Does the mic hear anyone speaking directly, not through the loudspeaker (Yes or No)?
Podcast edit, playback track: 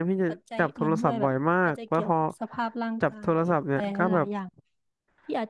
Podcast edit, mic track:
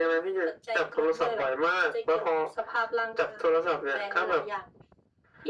No